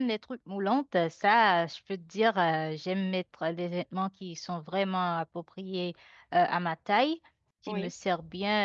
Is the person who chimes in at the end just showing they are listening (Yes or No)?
Yes